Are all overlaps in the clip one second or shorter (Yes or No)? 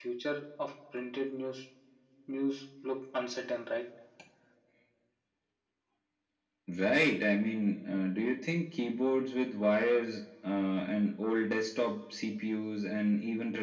Yes